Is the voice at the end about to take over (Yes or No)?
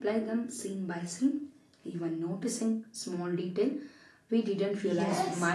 Yes